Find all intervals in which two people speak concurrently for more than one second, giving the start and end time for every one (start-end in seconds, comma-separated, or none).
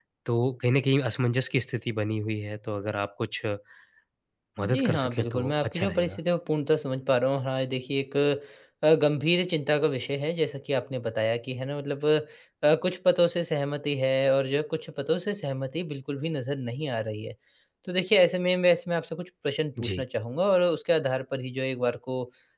4.7-6.2